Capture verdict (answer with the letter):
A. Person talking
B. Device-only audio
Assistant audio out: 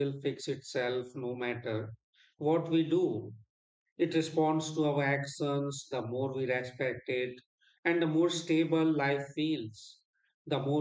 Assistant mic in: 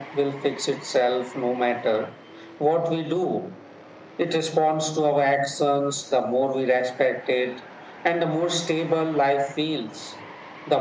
B